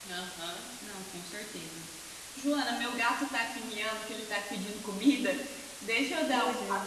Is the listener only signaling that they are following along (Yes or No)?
Yes